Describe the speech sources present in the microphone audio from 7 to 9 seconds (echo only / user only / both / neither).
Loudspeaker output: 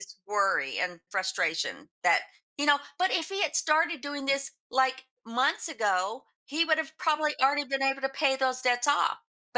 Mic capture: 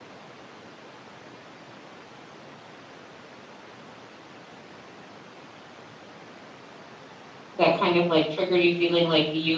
user only